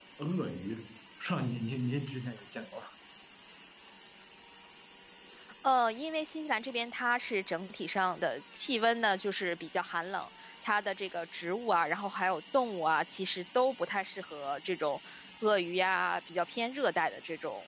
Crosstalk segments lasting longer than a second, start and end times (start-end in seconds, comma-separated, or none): none